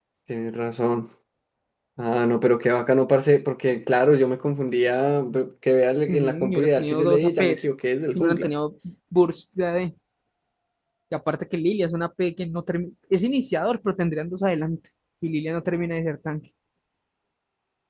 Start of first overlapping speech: 6.1 s

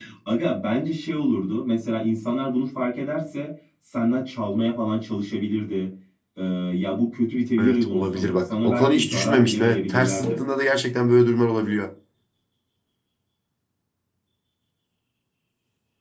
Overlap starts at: 7.6 s

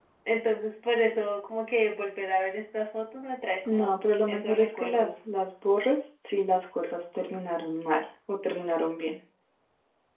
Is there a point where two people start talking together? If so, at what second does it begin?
3.7 s

